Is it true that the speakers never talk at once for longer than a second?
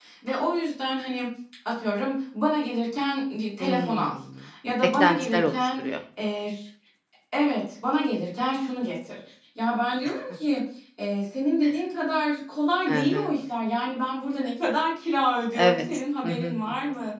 No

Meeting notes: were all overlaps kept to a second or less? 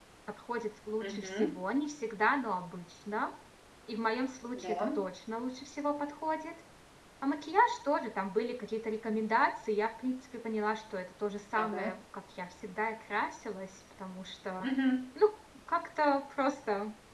Yes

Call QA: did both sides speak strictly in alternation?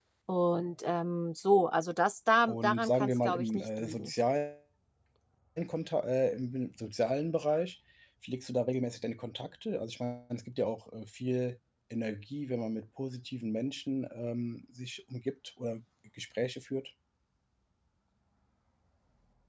No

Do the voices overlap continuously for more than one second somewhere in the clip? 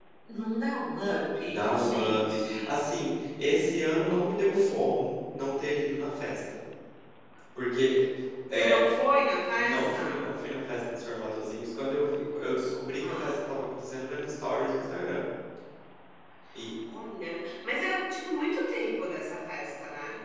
Yes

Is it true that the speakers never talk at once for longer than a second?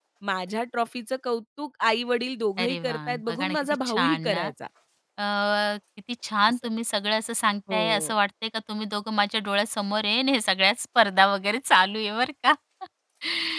No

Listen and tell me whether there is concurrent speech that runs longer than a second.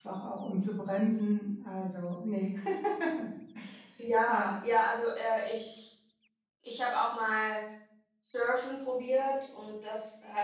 No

